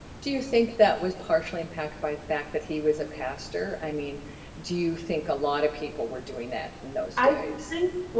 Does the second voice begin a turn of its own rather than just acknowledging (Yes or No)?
Yes